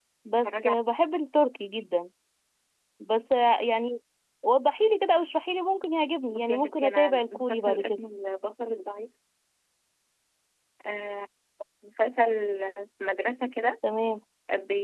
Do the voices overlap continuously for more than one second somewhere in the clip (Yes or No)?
Yes